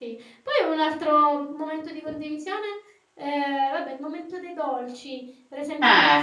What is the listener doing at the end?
listening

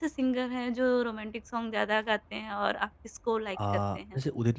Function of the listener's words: taking over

